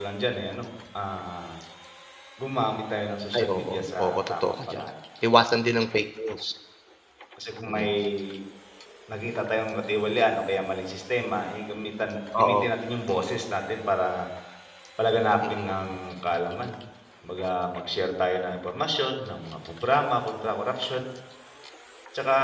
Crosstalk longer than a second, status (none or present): present